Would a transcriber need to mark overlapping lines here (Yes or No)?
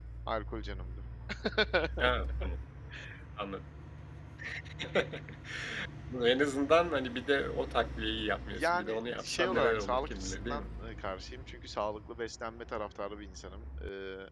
Yes